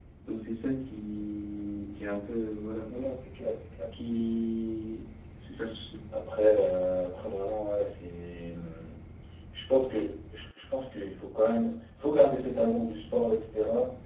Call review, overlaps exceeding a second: none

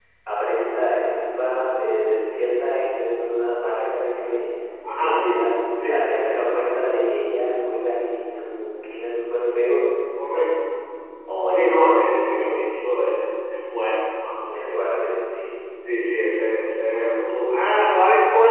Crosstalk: present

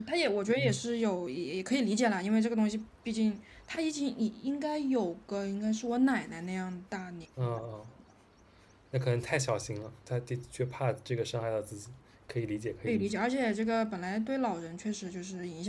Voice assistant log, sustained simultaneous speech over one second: none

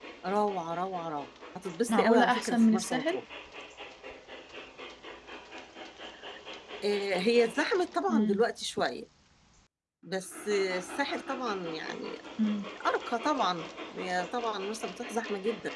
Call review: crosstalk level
present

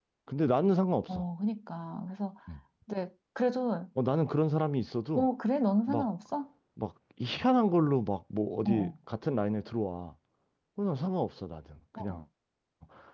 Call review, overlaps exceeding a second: none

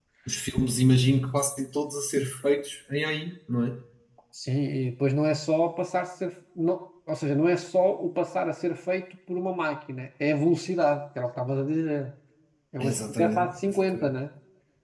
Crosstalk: present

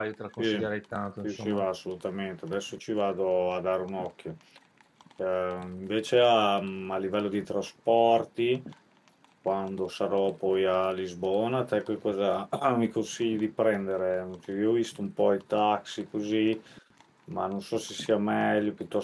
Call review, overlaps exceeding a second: none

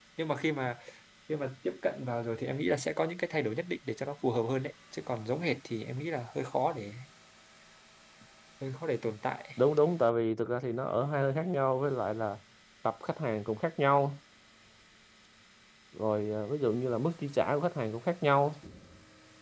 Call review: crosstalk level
none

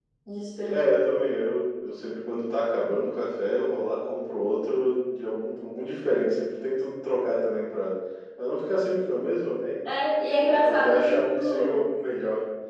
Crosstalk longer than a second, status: present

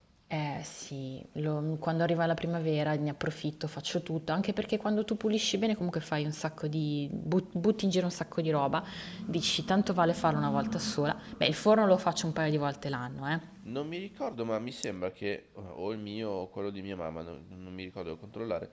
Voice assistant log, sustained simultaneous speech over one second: none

